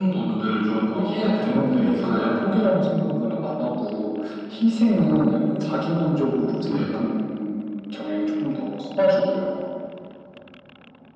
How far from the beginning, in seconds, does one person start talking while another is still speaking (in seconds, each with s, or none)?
0.9 s